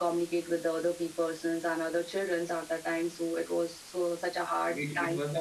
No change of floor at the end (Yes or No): No